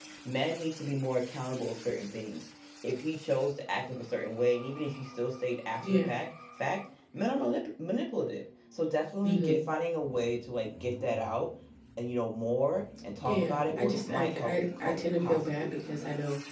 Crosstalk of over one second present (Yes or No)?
Yes